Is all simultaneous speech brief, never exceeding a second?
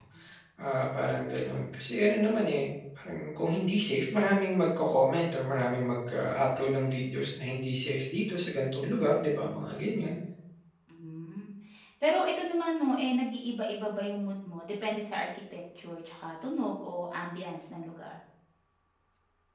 Yes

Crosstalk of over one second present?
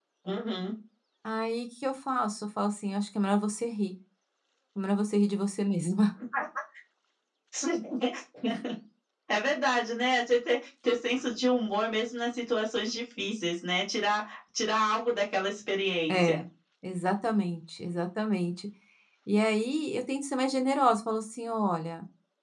No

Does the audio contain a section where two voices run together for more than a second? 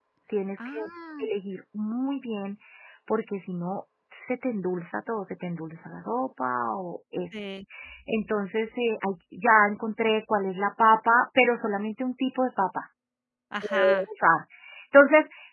No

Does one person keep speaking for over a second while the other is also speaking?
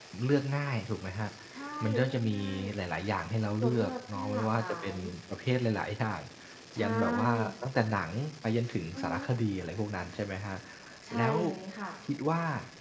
Yes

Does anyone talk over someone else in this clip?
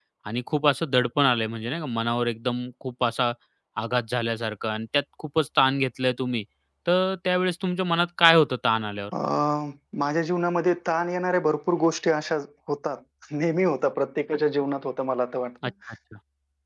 No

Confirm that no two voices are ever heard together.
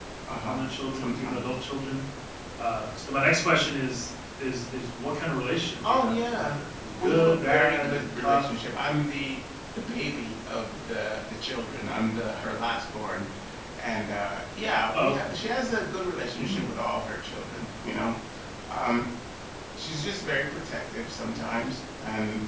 No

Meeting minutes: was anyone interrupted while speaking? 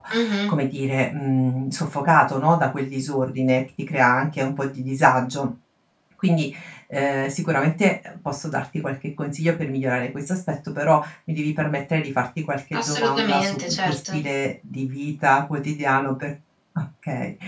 Yes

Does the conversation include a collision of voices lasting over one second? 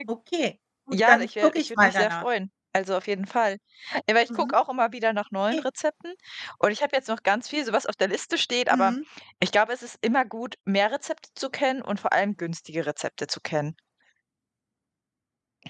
Yes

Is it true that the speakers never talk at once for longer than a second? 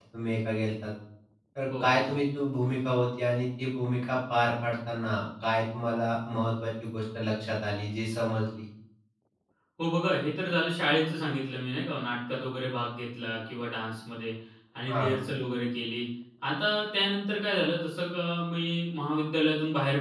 Yes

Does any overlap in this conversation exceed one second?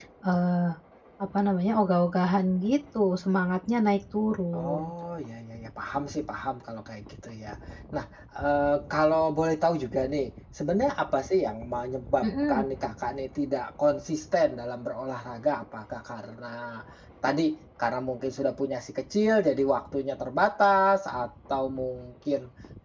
No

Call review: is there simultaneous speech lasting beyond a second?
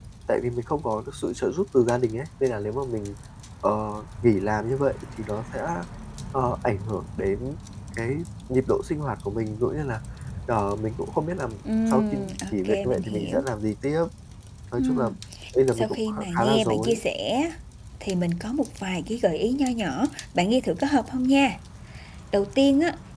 Yes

